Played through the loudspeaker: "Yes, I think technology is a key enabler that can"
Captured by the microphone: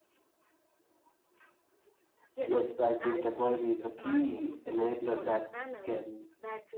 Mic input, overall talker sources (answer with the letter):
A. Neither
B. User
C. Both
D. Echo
C